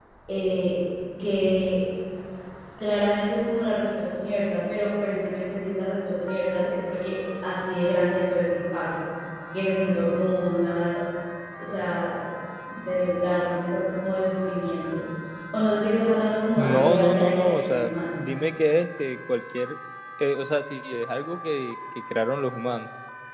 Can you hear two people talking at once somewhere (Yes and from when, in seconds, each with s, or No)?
Yes, from 16.6 s